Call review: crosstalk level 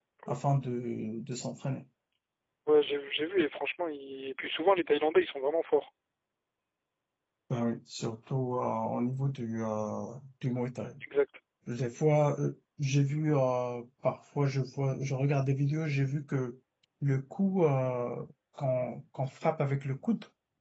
none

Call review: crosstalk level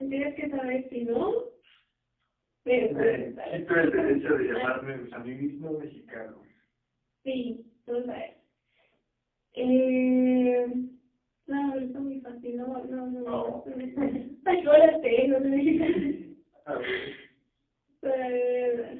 present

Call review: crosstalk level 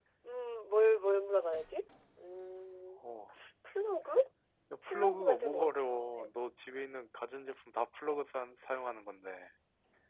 present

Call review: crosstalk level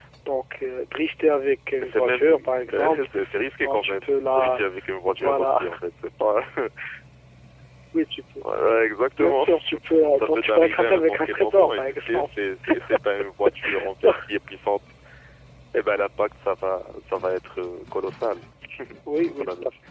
present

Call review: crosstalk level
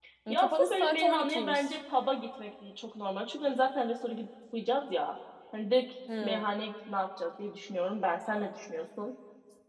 present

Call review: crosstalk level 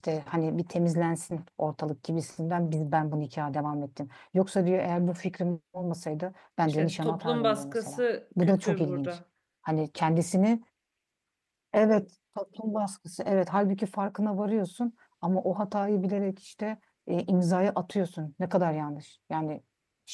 present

